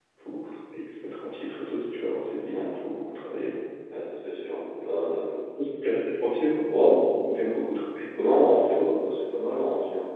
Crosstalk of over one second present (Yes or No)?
No